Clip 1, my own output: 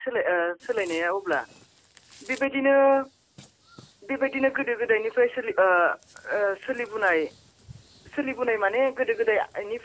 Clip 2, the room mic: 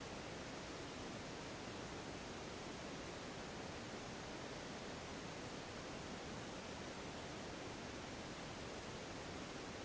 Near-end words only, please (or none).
none